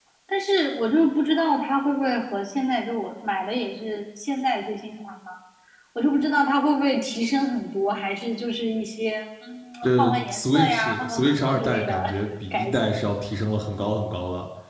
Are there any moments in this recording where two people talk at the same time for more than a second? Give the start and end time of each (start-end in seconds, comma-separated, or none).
9.8-12.0